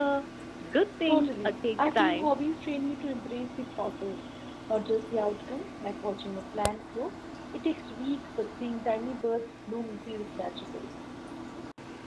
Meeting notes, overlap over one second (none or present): present